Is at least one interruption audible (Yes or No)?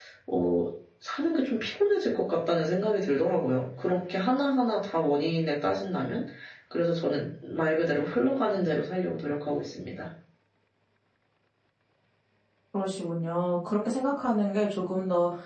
No